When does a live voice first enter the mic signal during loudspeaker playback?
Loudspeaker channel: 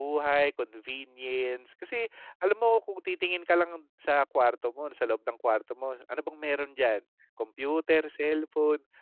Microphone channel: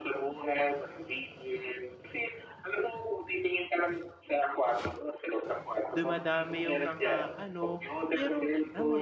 6 s

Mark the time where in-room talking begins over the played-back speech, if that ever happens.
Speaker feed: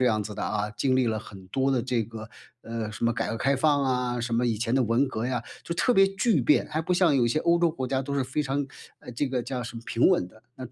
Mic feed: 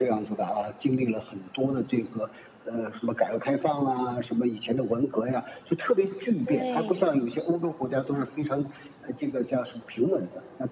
6 s

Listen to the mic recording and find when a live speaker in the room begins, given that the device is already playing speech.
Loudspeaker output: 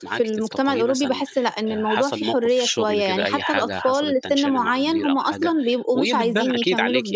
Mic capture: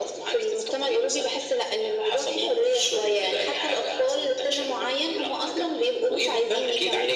none

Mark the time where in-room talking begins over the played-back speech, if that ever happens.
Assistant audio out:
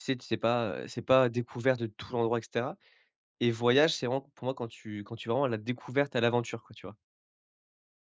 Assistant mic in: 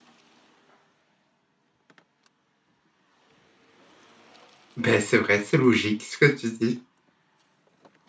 5 s

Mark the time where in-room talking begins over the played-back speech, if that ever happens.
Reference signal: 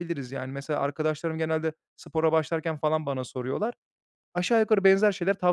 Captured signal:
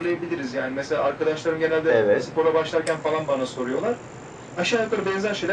2 s

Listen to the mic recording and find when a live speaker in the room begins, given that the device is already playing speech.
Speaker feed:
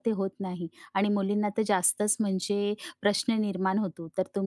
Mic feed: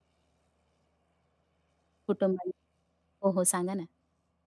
2 s

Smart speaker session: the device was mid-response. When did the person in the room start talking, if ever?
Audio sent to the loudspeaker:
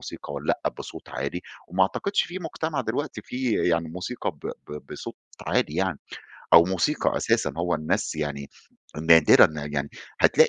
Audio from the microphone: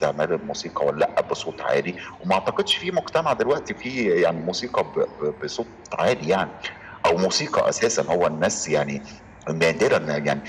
none

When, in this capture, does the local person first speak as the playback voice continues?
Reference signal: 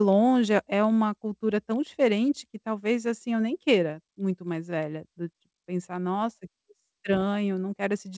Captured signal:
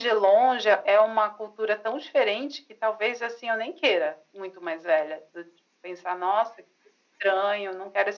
none

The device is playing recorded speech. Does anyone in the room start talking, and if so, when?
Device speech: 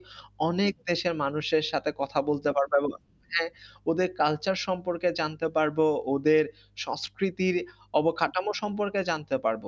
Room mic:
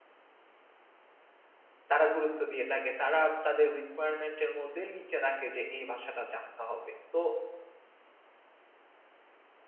2 s

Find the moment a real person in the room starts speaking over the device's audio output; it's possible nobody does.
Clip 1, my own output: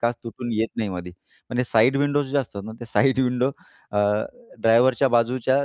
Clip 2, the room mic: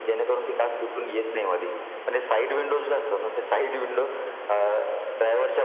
none

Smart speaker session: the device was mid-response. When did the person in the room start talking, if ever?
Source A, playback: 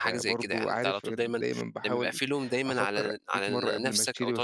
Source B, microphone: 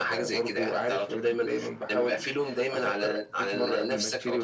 none

